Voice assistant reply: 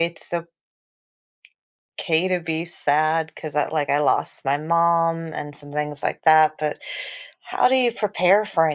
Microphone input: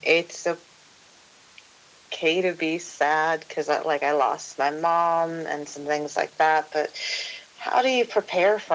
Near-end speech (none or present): none